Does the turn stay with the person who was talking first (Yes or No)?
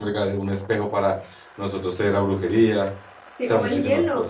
No